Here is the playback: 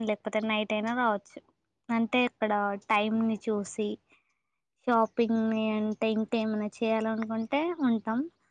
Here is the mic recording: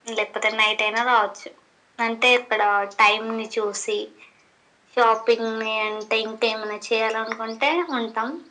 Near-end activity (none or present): none